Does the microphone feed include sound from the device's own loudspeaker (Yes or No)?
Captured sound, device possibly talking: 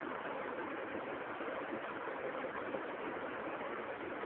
No